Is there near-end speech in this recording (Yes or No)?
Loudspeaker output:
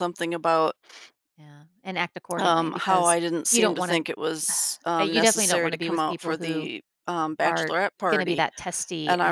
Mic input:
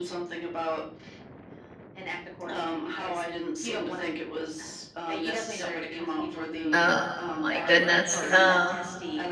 Yes